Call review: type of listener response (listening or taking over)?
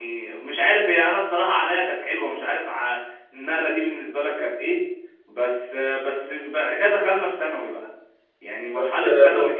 taking over